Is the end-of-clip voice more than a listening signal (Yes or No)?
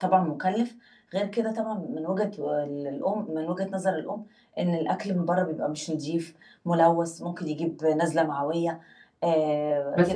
Yes